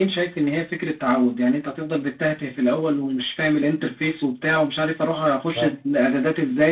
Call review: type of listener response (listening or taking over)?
listening